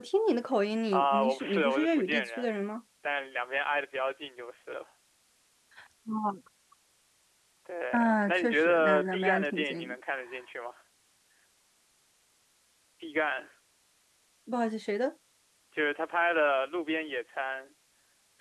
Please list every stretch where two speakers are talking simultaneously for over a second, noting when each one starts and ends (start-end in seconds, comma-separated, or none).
0.9-2.5, 7.9-9.9